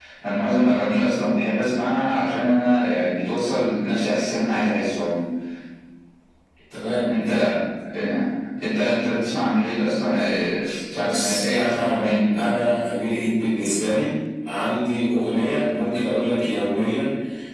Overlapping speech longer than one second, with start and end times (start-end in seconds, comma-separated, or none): 11.0-12.4